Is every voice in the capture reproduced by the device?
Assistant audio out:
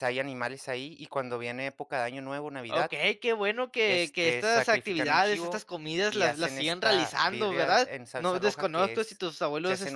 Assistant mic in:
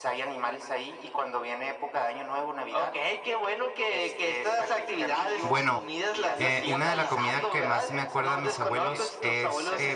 No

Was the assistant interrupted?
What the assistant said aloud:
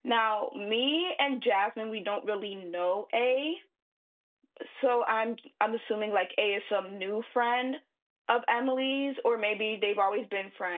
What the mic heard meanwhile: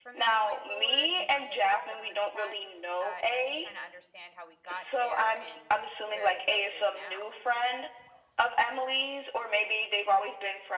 Yes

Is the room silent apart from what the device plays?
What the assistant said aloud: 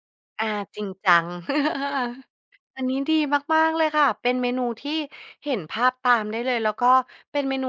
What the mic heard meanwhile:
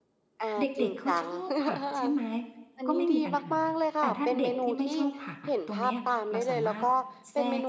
No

